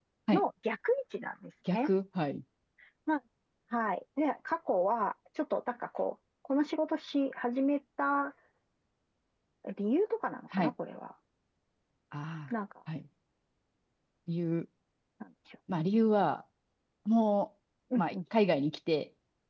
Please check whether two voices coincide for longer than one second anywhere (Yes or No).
No